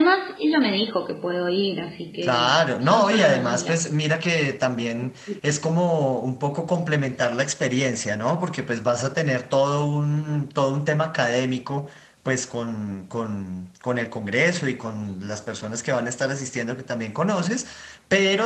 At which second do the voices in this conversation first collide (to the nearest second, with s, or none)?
2 s